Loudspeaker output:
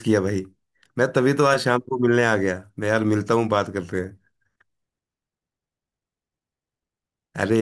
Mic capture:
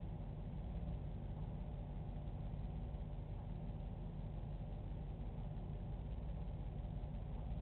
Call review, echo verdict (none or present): none